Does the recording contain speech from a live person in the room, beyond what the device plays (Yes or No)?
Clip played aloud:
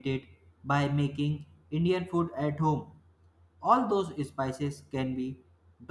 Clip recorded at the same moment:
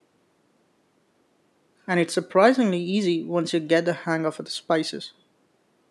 Yes